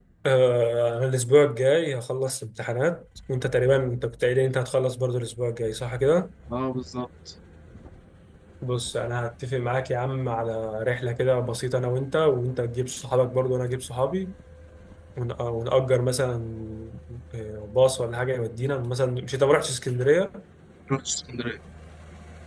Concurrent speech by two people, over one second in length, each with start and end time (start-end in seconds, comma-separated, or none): none